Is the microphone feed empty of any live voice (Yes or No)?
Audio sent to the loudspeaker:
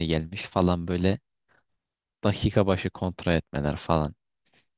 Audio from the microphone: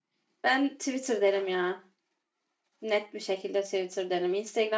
No